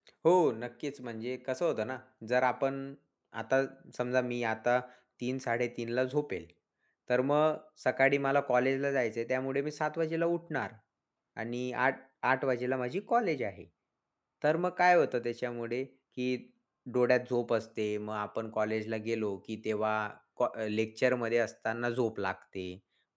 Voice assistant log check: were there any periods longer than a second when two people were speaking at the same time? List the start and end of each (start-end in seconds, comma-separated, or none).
none